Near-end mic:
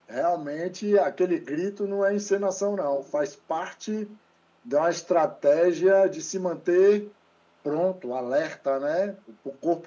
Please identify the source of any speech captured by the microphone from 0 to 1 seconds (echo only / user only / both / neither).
echo only